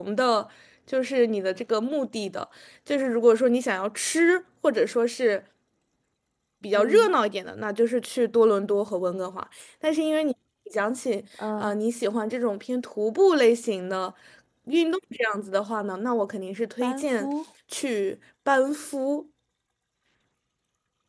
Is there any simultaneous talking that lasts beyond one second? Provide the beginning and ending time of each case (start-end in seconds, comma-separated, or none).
none